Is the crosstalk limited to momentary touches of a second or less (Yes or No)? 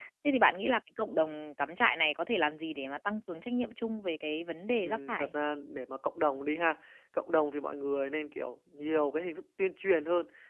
Yes